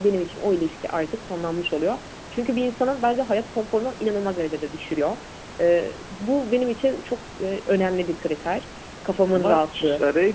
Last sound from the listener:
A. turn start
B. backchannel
A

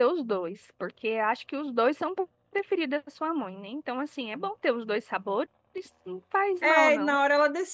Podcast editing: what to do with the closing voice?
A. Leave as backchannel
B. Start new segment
B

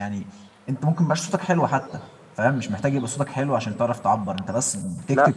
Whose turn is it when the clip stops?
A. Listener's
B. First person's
B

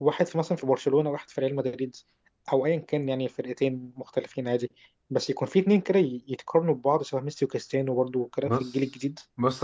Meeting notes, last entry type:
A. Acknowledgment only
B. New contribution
B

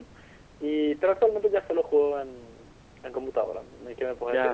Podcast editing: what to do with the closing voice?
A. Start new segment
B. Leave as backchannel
A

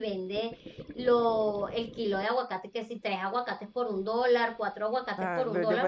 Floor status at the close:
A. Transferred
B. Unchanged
A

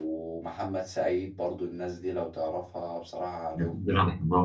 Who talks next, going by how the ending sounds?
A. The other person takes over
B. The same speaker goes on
A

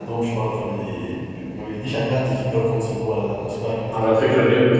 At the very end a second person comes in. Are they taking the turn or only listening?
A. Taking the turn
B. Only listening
A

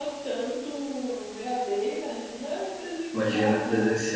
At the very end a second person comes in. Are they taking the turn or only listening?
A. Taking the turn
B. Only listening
A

